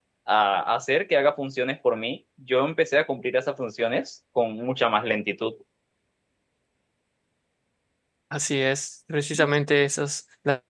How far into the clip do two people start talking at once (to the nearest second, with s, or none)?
none